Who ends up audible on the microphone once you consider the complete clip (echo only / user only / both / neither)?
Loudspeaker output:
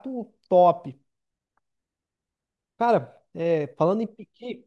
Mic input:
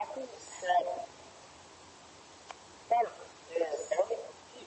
echo only